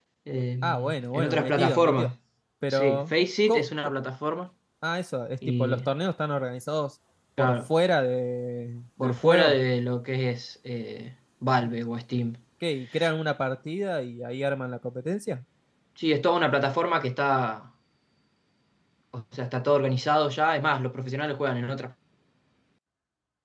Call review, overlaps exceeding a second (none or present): present